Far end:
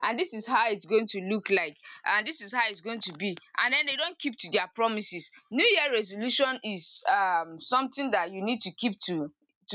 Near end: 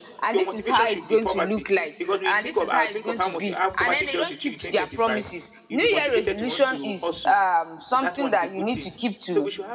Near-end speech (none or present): present